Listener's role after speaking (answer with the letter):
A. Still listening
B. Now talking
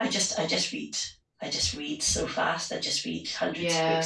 B